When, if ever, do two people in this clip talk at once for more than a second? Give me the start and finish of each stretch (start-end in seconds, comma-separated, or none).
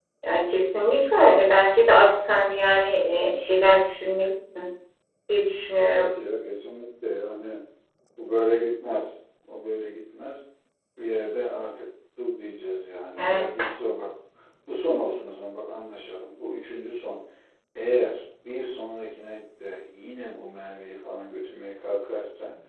none